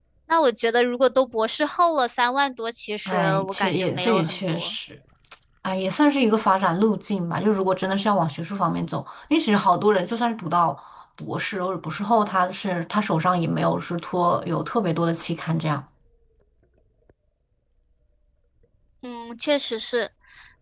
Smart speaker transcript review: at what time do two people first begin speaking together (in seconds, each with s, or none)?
3.1 s